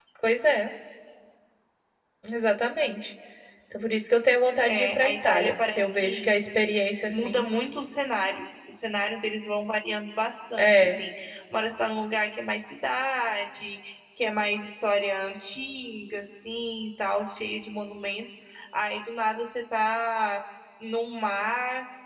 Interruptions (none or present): present